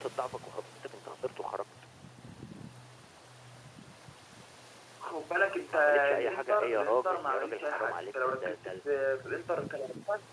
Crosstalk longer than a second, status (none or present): present